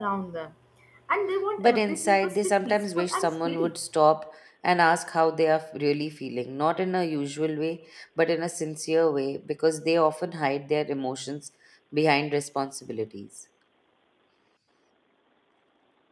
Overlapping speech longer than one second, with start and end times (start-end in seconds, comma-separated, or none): 1.6-3.7